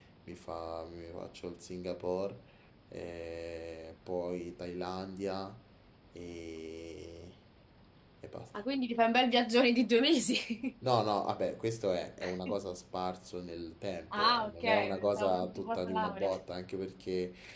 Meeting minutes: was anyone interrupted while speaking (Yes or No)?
Yes